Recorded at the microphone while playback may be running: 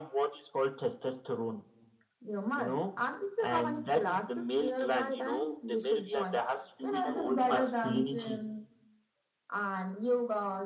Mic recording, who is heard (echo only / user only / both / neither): echo only